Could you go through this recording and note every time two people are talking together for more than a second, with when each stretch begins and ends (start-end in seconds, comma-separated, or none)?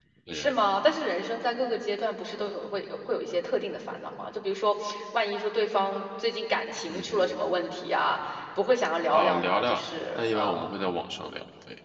9.1-10.7